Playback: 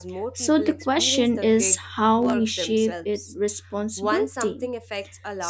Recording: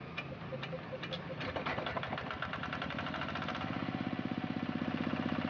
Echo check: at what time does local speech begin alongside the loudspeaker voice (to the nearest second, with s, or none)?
none